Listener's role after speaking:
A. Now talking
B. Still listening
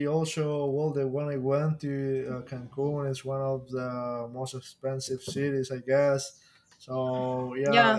B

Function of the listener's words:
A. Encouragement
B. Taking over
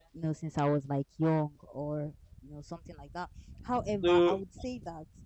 A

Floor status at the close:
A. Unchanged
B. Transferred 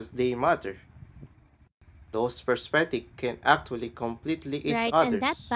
B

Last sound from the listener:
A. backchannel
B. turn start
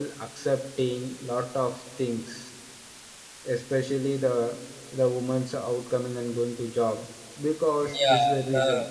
B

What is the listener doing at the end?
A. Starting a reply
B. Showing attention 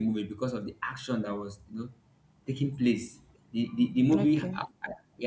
B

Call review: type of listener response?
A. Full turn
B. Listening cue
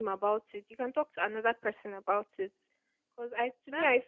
A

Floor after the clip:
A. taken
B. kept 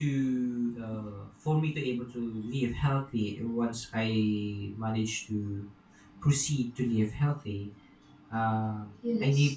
B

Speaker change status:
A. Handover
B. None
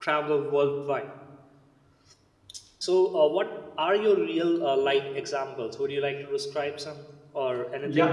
A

